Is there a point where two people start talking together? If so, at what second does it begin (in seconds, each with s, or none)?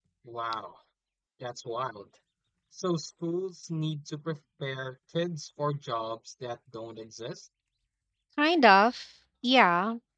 none